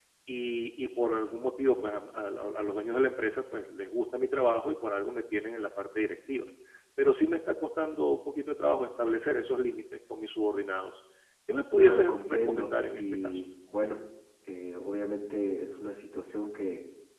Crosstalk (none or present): present